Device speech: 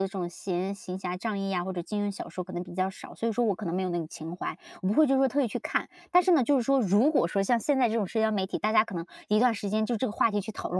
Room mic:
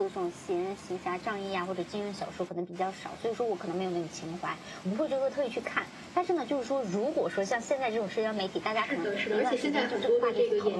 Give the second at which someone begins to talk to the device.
8.7 s

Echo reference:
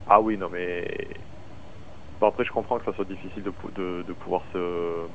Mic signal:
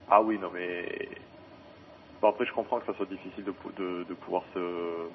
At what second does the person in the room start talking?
none

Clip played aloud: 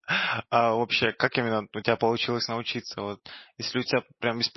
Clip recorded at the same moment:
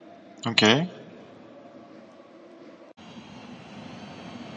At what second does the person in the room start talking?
0.5 s

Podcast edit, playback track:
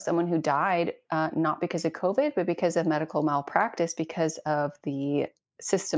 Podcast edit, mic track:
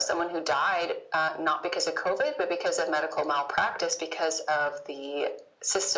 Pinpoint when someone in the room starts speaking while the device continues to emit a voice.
none

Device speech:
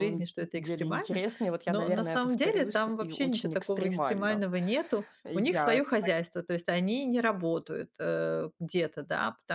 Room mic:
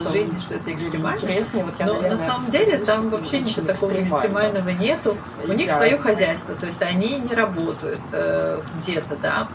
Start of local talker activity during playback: none

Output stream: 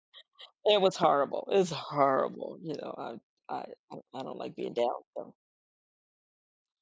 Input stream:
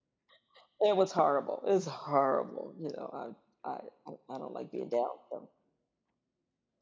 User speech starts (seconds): none

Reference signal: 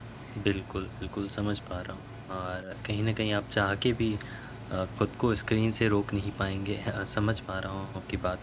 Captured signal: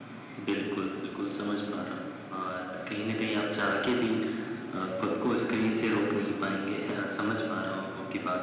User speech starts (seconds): none

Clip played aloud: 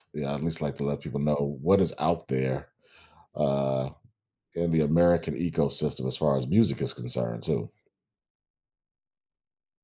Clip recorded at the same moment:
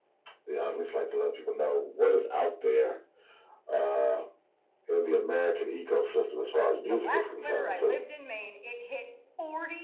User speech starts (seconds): 6.9 s

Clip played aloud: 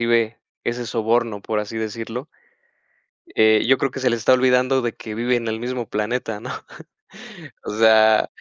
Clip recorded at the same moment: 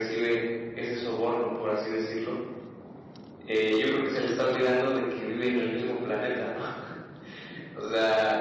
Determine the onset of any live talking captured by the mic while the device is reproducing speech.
none

